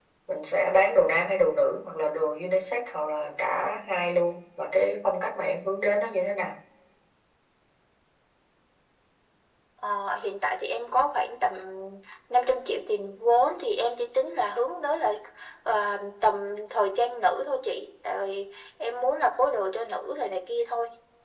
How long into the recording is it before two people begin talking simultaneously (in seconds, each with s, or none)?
none